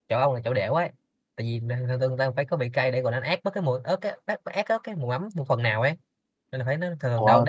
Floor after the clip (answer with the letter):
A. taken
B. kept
B